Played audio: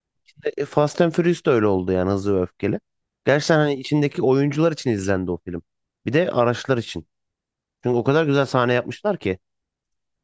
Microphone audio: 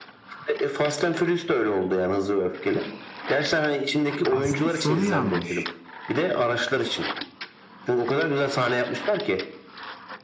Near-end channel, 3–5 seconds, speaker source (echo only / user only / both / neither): both